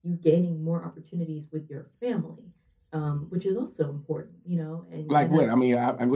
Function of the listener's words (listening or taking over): taking over